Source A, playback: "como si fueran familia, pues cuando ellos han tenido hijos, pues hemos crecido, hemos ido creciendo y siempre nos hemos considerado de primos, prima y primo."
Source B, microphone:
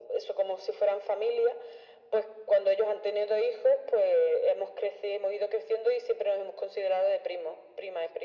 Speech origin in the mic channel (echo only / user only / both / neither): echo only